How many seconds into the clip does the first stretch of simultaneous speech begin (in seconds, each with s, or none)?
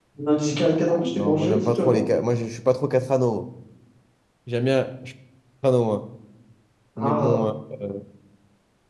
0.6 s